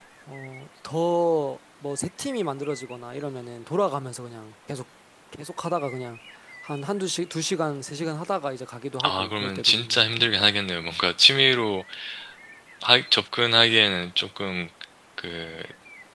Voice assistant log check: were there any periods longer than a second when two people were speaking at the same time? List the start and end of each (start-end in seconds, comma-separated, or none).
9.0-10.3